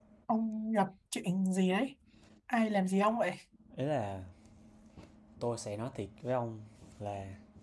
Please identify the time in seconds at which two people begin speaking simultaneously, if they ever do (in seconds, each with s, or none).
none